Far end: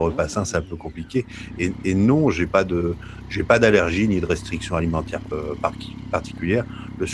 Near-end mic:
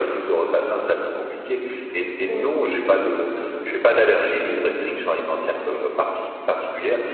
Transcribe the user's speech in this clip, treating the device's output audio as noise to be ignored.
Mmh mh.

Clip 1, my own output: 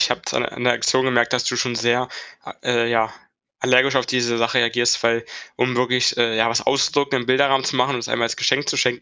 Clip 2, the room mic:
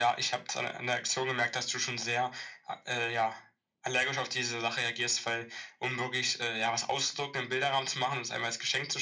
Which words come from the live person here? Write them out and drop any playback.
none

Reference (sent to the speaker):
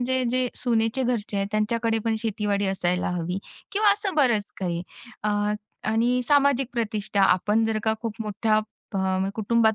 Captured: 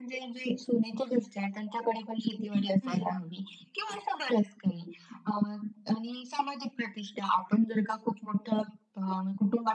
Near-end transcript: हं, हं.

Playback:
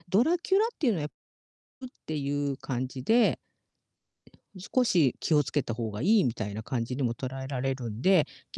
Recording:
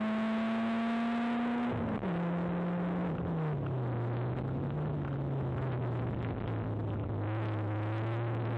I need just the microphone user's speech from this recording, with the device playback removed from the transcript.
none

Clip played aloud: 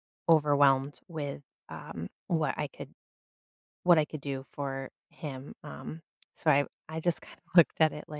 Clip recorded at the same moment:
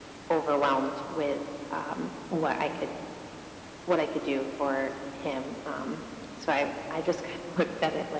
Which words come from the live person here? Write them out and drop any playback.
none

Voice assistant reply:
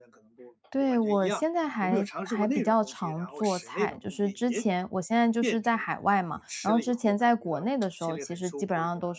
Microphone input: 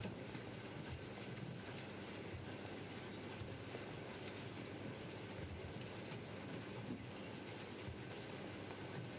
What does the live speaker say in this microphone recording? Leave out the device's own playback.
none

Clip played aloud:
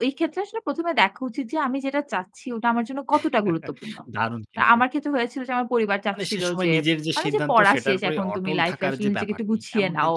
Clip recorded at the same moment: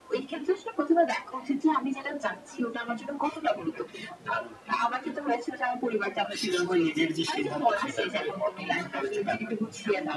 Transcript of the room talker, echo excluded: none

